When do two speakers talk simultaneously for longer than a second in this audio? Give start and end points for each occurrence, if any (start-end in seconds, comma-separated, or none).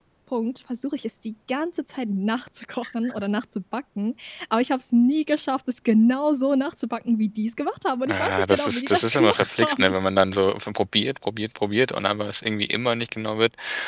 8.1-9.9